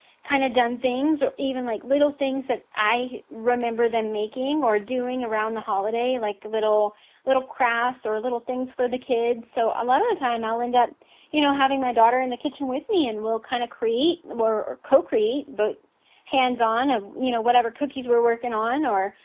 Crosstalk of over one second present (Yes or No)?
No